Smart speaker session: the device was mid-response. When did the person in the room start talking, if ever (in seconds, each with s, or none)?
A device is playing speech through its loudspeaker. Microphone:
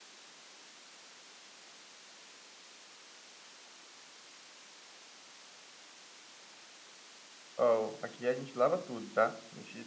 7.6 s